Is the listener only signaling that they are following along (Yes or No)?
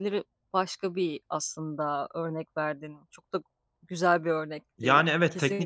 No